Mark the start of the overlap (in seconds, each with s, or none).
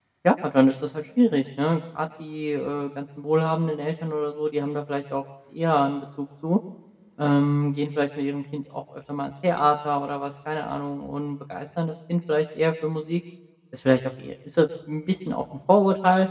none